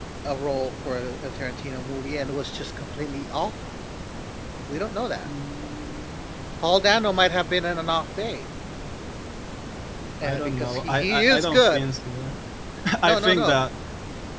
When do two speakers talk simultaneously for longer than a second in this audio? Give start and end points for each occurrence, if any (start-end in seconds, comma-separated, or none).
10.2-11.8